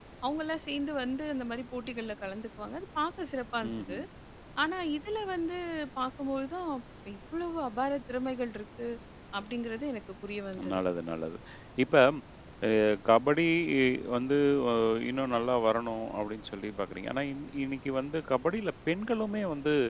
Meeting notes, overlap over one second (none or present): none